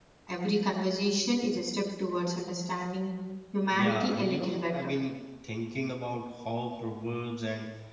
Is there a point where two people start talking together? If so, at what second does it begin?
3.7 s

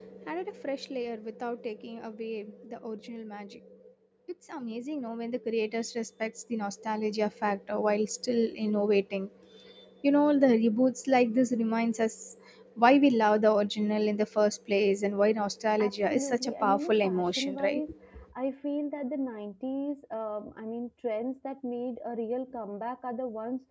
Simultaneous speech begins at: 15.8 s

